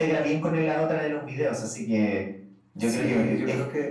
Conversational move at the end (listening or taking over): taking over